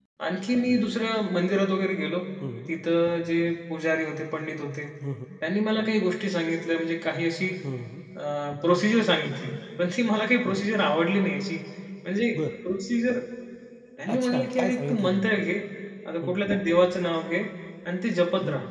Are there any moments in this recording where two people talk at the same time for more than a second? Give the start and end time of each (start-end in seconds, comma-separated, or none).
14.1-15.4